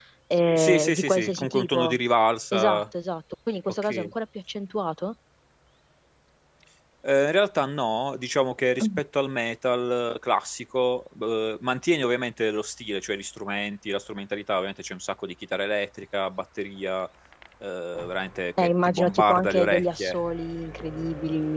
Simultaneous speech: Yes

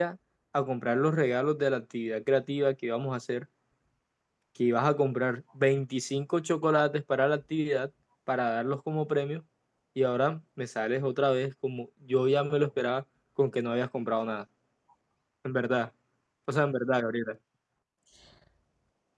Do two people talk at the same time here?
No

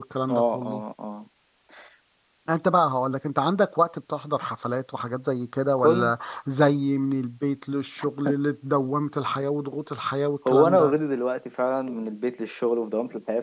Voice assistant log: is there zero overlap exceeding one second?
Yes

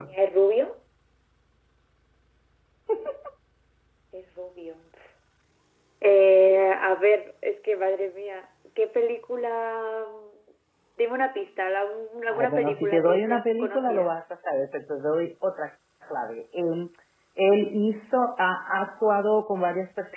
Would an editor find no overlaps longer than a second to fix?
No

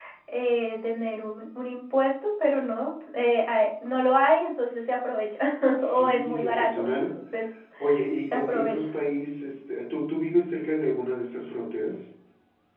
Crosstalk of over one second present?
Yes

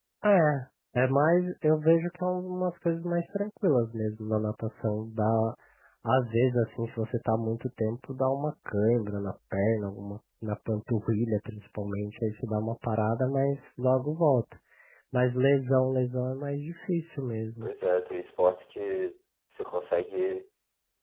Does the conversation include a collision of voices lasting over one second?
No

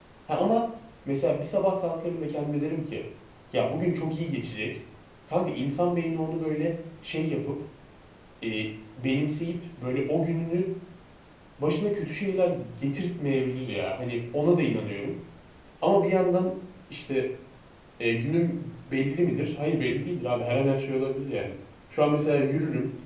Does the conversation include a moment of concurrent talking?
No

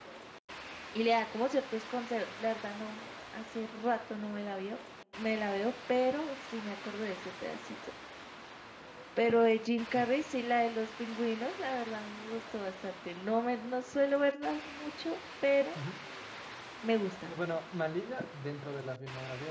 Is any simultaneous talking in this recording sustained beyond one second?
No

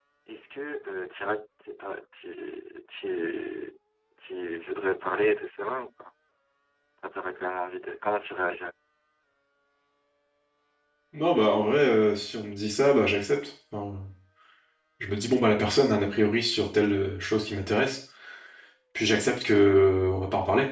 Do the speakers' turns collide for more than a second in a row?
No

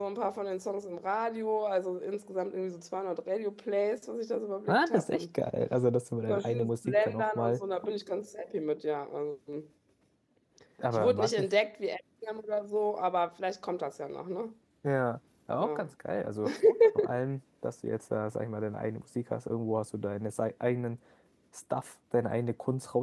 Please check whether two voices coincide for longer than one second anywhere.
Yes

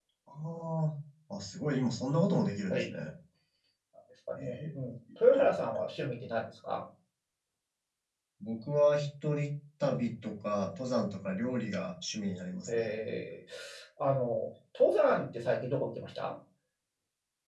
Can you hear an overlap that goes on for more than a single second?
No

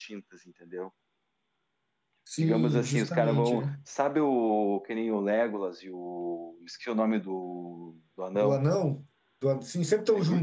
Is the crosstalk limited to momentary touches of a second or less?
No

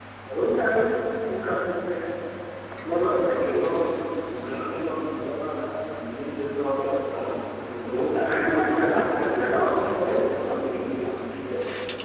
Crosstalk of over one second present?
Yes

